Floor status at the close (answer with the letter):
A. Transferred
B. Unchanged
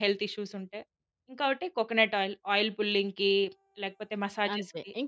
A